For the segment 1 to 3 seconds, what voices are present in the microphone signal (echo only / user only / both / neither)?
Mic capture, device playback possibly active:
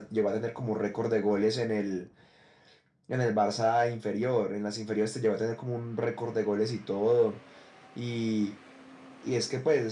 echo only